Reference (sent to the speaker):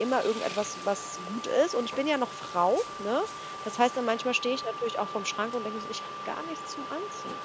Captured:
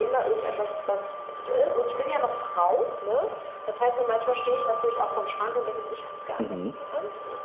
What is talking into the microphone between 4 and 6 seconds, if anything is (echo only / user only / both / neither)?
echo only